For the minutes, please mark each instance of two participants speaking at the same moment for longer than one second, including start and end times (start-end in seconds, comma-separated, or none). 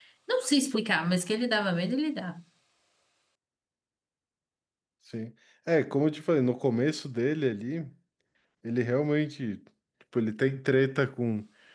none